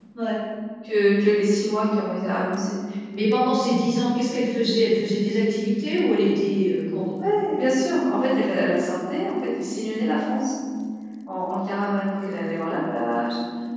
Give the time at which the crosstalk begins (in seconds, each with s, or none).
none